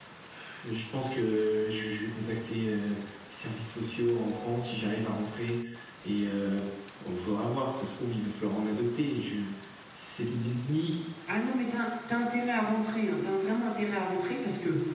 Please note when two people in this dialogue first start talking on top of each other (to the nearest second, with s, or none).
none